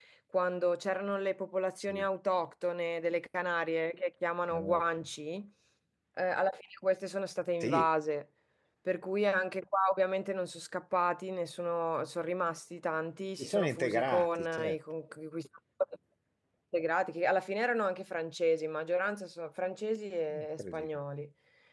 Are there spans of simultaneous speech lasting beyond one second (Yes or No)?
Yes